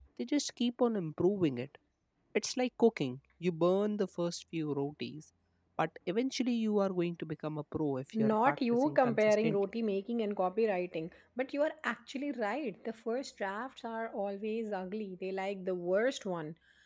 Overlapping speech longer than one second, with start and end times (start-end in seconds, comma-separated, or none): 8.1-9.6